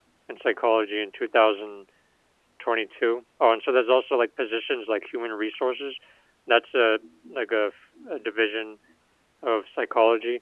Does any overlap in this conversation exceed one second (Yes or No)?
No